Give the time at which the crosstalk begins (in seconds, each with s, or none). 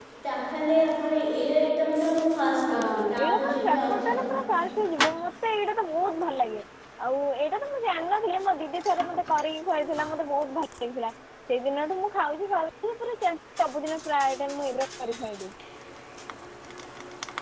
2.7 s